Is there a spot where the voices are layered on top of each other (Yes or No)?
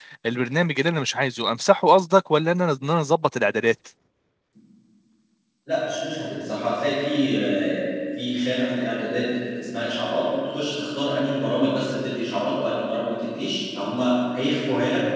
No